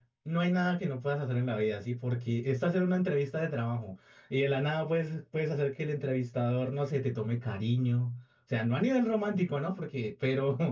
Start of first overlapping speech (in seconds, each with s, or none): none